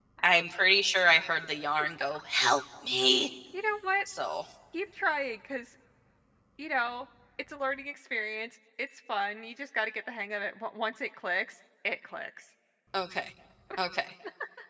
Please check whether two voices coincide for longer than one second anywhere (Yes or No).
No